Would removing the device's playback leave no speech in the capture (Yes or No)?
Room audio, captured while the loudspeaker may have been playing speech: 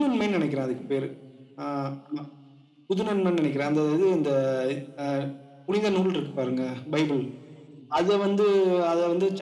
Yes